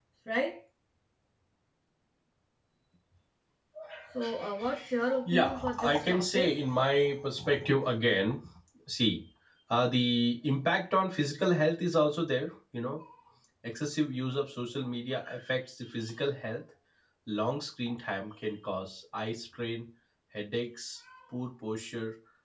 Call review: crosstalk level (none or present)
present